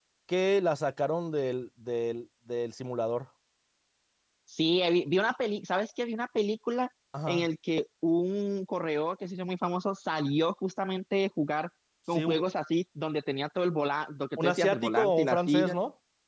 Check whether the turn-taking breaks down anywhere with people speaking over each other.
Yes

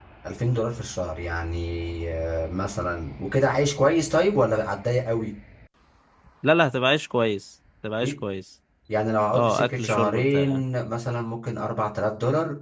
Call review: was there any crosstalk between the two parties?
Yes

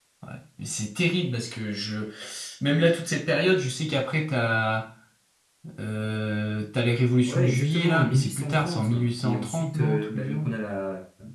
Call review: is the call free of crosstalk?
No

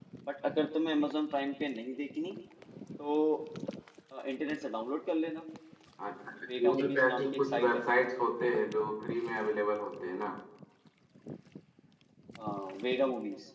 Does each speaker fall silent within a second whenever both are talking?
No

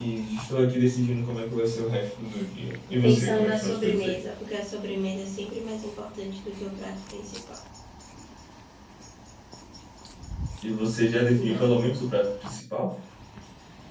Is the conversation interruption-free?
No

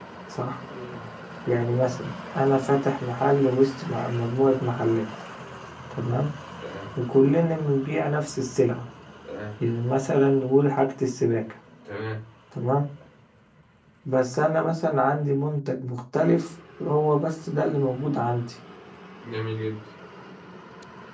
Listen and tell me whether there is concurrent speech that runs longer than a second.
No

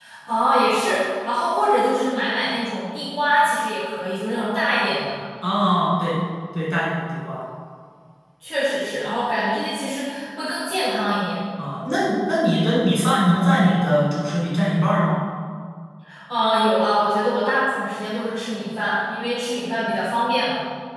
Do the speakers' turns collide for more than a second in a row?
No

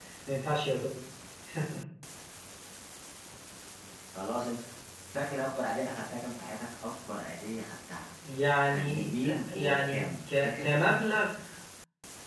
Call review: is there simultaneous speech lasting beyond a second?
Yes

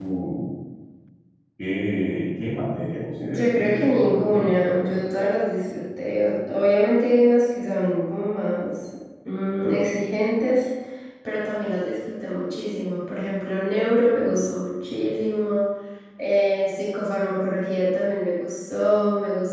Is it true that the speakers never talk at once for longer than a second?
No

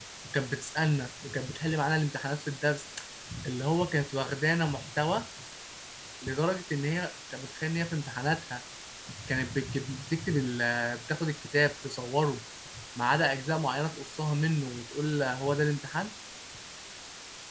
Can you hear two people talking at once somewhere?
No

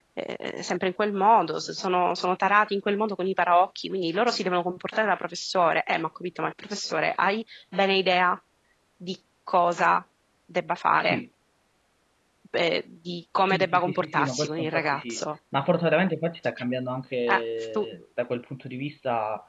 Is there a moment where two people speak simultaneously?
Yes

